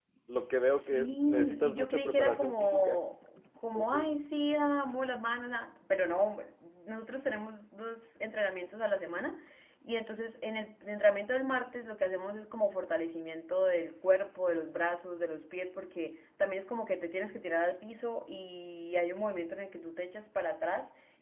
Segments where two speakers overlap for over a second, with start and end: 0.6-3.0

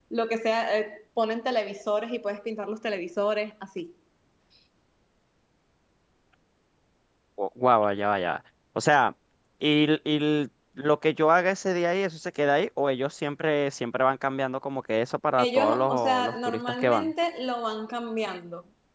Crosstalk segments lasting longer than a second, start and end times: 15.4-17.1

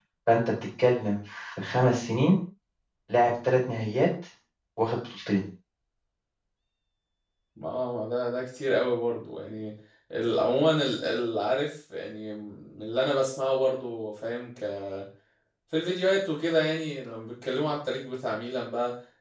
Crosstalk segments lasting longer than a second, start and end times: none

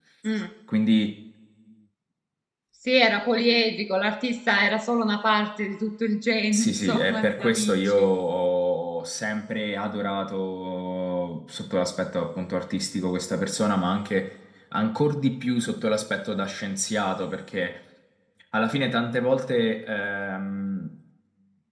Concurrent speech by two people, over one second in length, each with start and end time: 6.5-8.1

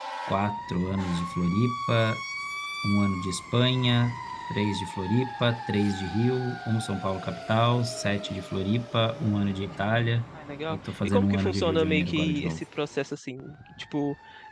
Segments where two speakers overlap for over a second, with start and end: 10.7-12.6

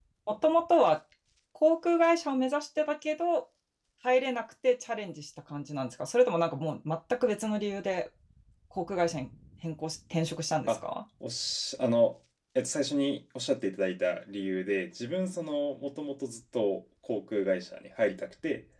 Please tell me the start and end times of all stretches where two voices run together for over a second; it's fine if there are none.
none

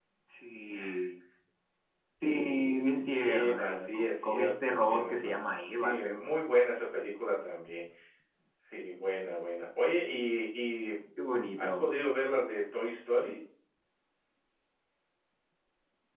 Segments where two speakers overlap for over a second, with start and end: 3.2-6.2

